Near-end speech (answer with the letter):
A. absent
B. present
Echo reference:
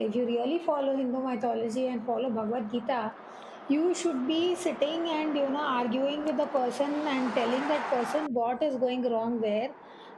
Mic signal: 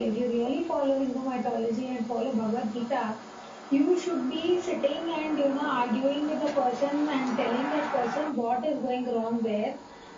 A